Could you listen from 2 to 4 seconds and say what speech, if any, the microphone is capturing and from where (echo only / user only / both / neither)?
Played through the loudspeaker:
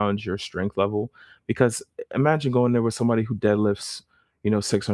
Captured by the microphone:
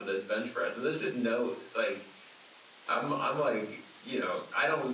user only